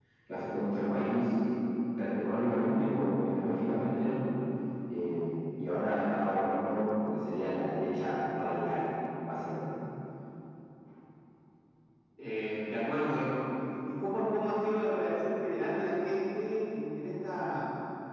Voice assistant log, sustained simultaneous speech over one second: none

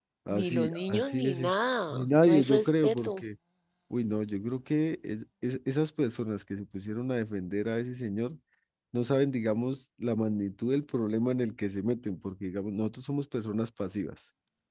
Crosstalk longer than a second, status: present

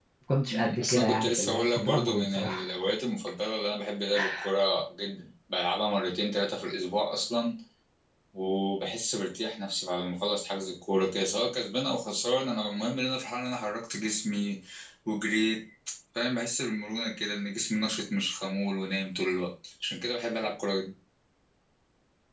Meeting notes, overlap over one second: present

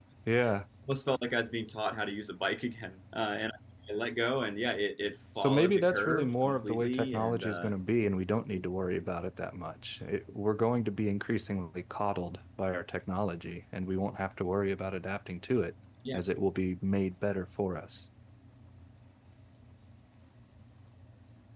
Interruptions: present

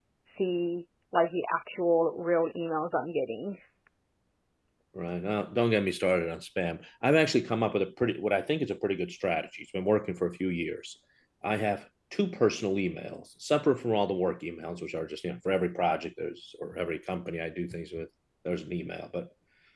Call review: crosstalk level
none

